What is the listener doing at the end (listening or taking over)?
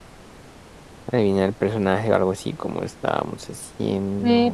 taking over